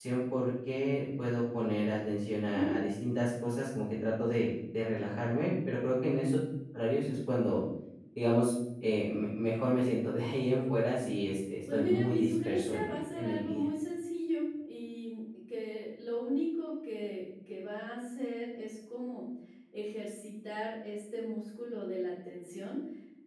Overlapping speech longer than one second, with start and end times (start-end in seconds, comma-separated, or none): 11.7-13.6